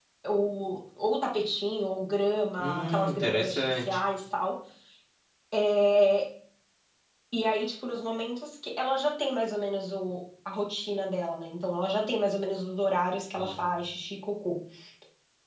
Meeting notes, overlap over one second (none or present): present